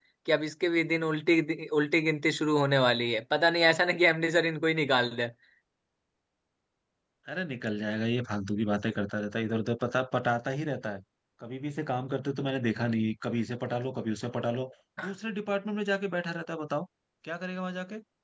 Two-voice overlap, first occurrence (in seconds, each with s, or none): none